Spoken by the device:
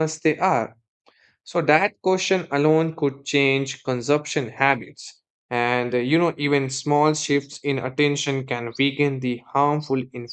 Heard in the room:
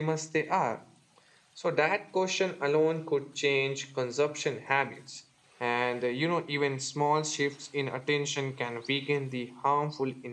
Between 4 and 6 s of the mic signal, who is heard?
echo only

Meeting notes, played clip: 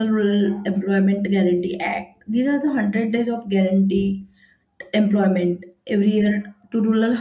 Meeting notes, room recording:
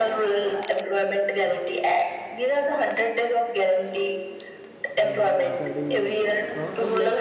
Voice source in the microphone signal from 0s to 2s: echo only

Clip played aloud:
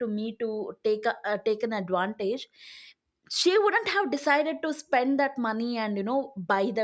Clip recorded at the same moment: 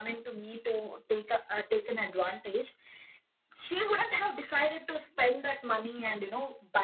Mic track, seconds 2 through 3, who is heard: echo only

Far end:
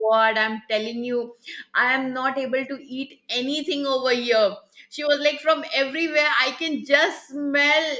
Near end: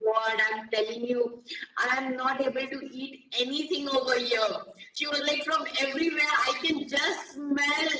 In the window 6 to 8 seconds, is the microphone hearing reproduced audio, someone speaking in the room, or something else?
echo only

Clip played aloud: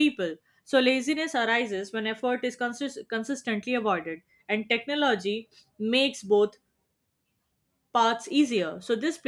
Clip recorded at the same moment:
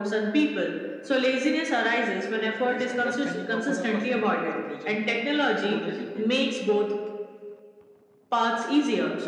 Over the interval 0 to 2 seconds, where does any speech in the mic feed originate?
echo only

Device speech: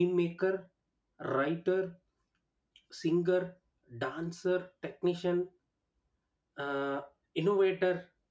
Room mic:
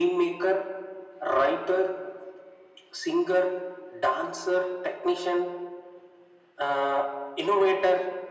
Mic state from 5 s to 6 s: echo only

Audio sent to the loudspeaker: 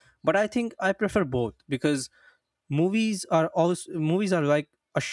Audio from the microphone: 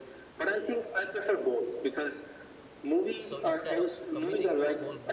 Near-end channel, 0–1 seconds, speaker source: echo only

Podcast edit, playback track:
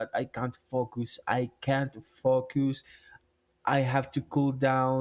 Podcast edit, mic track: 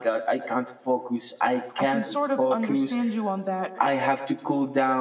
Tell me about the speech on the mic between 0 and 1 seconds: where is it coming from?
echo only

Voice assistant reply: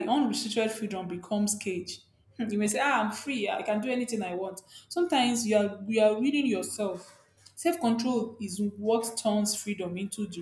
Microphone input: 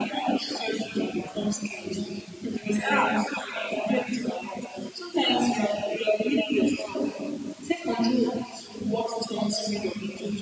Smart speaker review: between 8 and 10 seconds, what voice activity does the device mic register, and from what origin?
echo only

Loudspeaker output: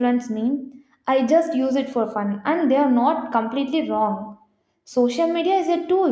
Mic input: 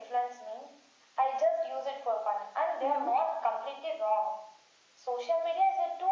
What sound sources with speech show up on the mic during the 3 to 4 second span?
both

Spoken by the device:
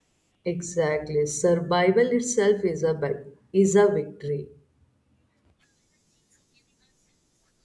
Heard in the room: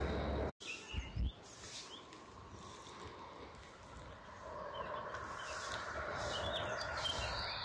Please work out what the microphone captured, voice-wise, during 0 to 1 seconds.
neither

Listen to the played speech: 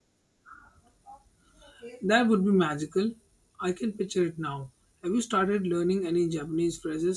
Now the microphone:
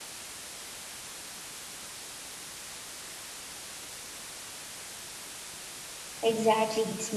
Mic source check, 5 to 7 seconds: user only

